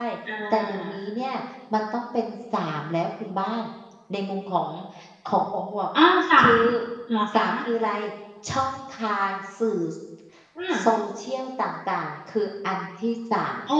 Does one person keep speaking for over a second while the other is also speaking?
No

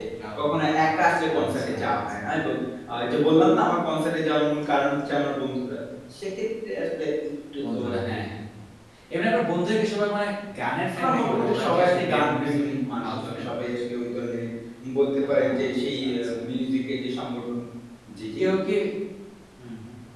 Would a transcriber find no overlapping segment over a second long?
No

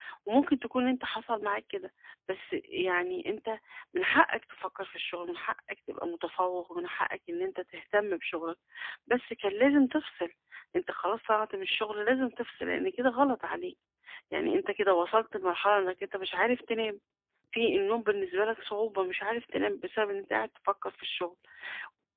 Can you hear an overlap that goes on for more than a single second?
No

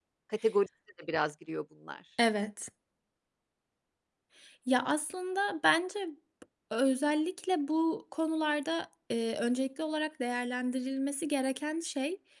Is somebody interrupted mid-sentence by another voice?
No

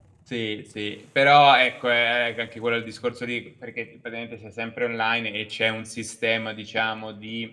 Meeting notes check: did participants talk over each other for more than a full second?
No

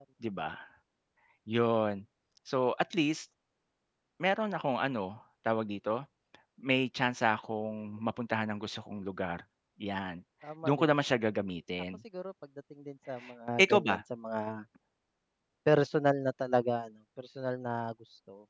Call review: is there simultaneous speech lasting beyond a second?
No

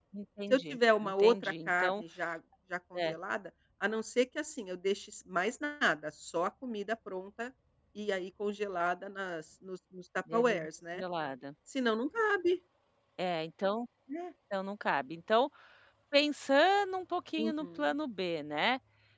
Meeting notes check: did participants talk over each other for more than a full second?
Yes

